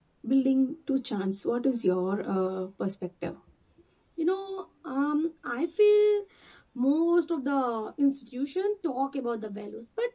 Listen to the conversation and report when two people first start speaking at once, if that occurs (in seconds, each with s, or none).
none